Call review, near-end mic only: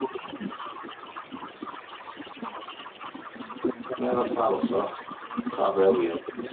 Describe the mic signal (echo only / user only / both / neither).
both